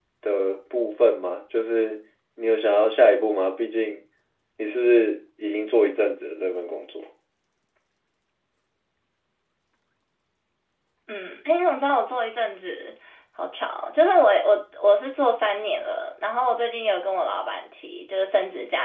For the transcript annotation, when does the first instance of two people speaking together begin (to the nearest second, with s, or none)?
none